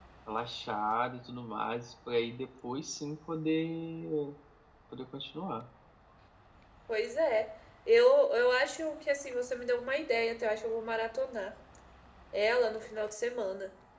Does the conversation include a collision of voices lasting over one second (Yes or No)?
No